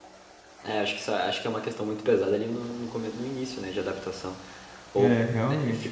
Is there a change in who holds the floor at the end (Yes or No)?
No